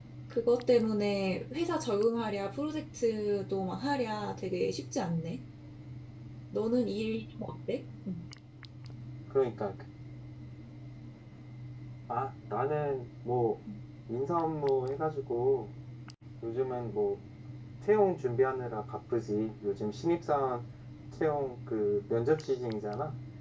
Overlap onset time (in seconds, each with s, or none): none